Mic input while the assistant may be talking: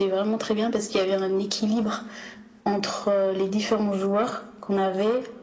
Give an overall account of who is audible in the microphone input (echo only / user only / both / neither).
echo only